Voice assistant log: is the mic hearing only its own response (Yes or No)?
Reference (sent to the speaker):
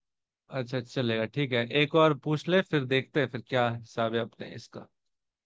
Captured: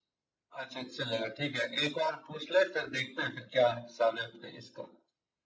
Yes